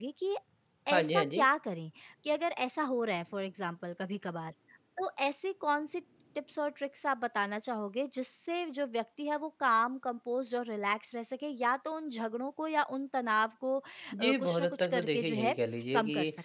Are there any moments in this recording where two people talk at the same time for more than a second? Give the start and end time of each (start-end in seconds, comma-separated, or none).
14.1-15.6